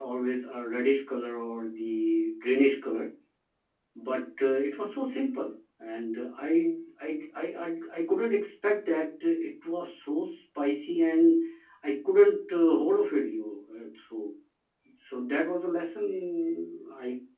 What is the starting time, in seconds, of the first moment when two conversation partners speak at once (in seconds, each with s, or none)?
none